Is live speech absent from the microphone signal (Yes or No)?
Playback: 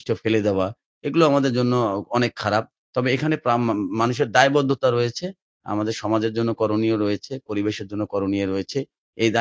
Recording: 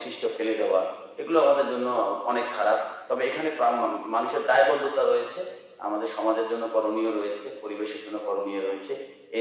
Yes